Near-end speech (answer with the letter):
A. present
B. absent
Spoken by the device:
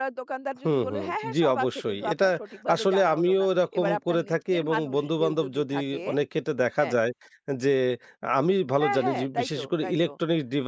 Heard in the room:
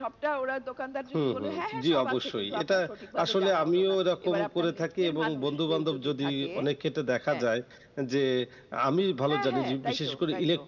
B